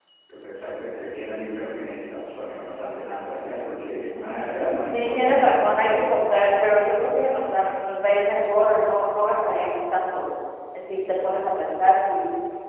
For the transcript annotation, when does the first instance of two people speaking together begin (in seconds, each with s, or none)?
4.8 s